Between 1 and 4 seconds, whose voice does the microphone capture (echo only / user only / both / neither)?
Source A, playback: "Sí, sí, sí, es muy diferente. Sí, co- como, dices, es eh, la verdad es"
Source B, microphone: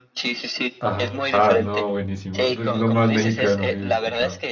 both